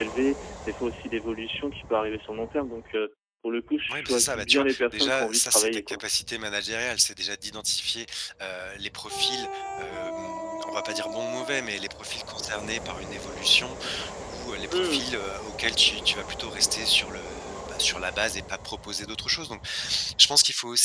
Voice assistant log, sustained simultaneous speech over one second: present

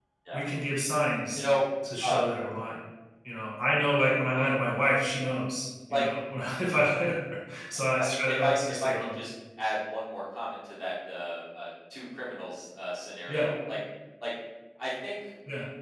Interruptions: present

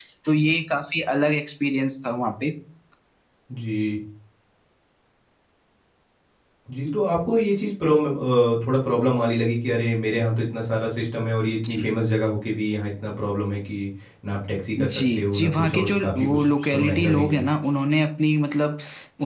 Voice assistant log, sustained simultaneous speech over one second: present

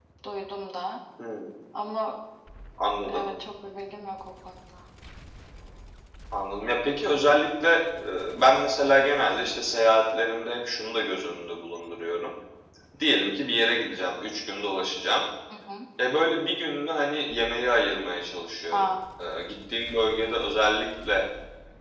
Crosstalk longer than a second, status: none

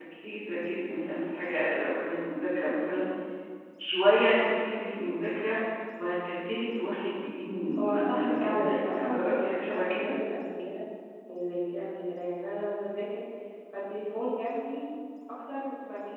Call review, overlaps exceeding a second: present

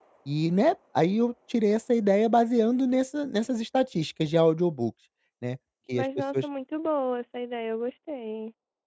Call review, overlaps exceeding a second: none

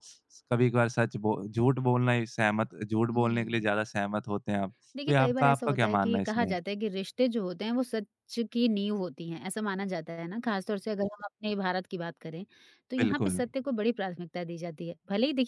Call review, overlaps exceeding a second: present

